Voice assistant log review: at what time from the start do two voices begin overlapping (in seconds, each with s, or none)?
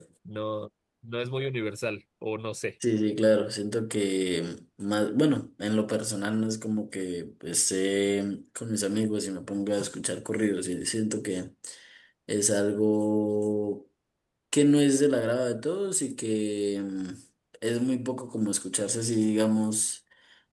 none